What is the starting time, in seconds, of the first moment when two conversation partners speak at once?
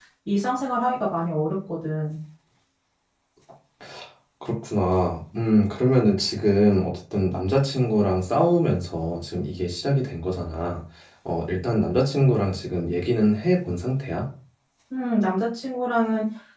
none

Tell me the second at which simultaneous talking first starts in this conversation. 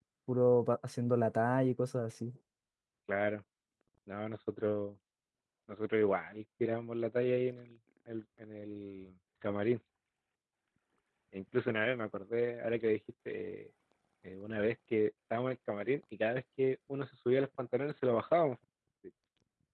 none

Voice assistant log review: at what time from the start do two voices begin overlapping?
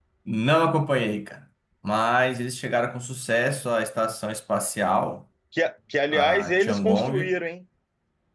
6.1 s

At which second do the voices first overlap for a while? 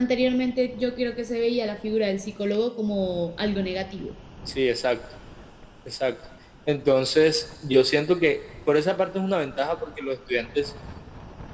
none

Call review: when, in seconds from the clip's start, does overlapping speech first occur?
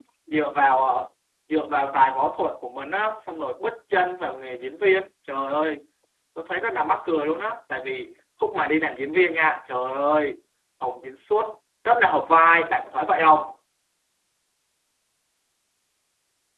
none

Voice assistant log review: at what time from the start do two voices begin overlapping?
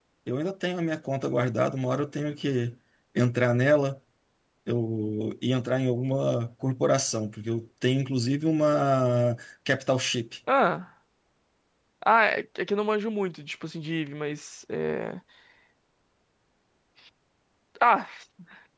none

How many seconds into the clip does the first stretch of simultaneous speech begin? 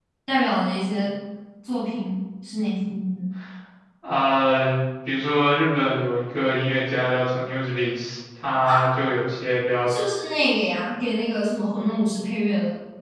none

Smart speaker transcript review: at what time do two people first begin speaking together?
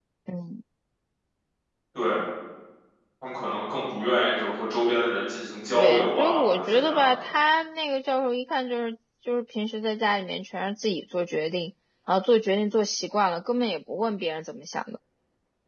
5.7 s

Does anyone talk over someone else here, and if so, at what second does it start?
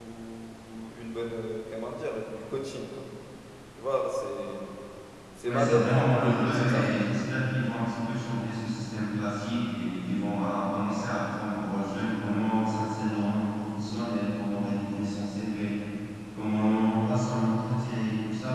5.4 s

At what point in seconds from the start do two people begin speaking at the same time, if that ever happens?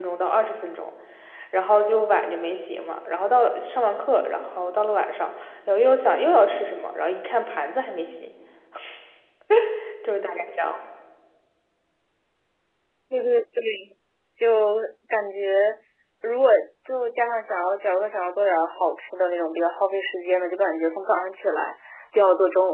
none

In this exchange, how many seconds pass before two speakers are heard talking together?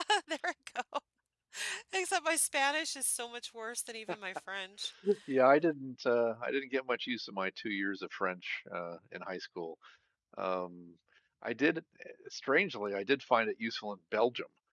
none

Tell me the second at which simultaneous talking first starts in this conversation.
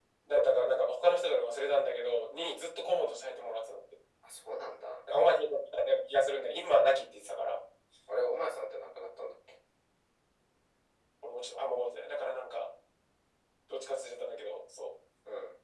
none

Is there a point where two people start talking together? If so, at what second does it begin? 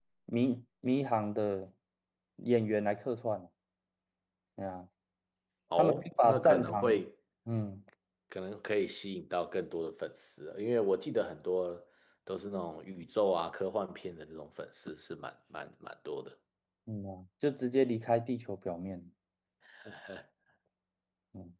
5.8 s

